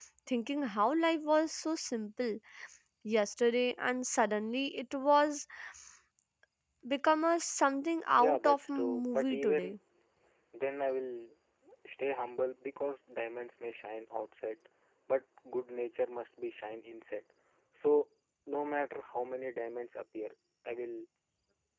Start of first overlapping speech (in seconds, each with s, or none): 8.1 s